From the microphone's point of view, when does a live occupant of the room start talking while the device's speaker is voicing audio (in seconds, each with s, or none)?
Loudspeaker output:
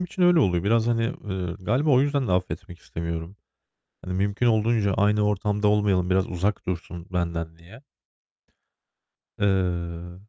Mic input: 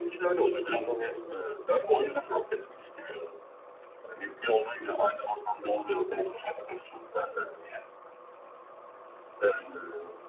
none